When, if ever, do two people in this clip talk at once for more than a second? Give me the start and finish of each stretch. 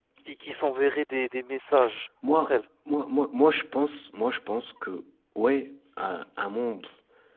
none

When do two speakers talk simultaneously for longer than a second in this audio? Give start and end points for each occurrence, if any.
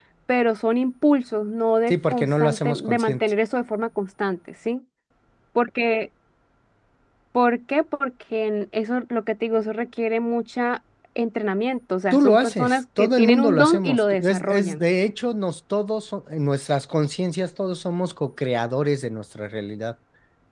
1.9-3.2, 12.1-14.8

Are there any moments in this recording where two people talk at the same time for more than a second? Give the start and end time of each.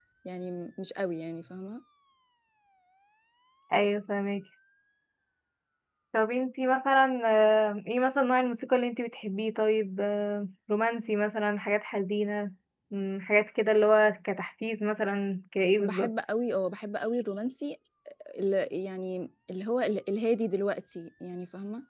none

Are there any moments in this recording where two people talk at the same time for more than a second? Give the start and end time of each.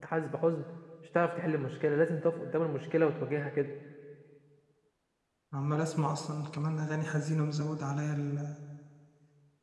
none

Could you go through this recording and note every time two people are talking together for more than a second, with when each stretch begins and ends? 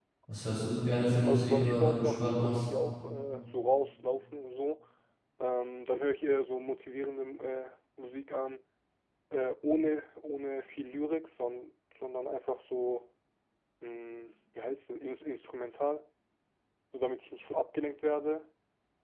1.3-2.6

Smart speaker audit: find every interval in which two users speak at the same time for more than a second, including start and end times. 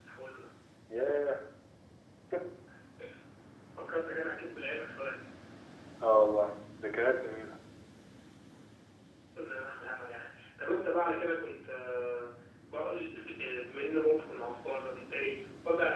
none

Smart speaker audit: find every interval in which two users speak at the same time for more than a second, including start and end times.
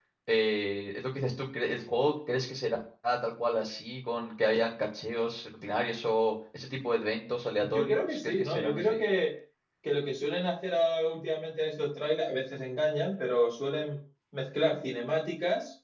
7.6-9.0

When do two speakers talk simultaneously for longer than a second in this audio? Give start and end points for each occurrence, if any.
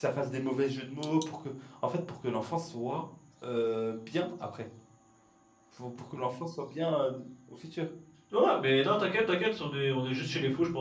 none

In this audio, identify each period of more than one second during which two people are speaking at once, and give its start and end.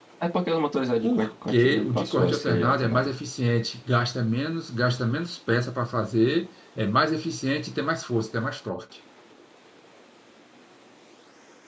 1.0-3.1

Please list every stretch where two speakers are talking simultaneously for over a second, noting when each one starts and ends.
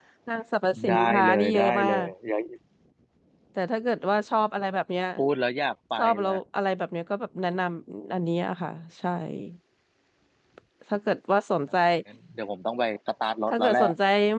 0.9-2.1

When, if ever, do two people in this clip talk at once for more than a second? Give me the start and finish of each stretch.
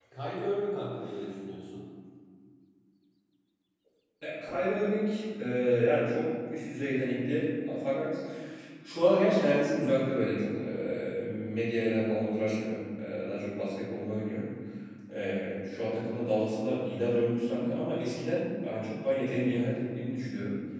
none

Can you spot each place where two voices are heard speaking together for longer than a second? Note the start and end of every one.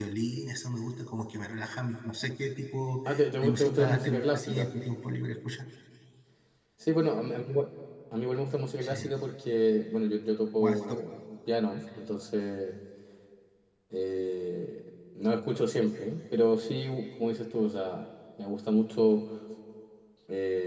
3.4-4.7

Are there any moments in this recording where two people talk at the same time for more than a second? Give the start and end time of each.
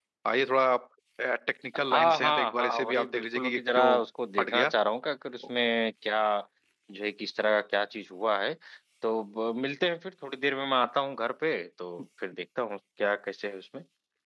1.9-3.9

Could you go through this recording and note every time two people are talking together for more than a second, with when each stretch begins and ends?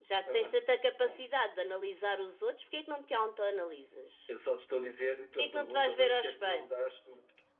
5.4-6.7

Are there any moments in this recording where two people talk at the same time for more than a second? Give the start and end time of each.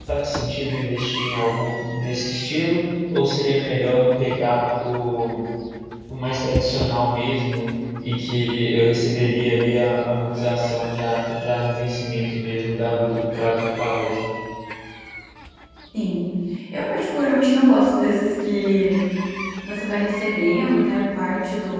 none

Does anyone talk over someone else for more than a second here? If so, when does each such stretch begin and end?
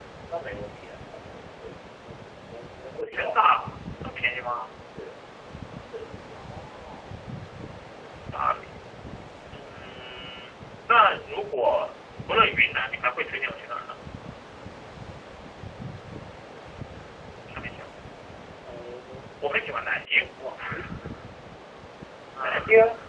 none

